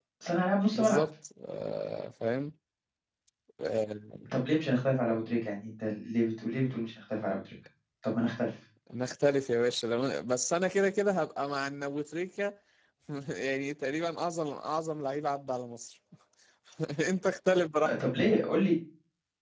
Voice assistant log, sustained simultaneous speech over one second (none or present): none